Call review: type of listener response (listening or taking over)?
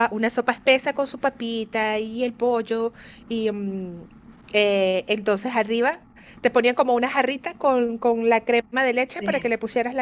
listening